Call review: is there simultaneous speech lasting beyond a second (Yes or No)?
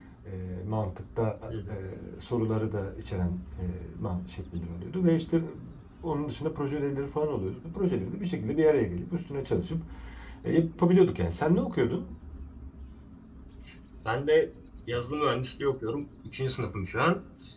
No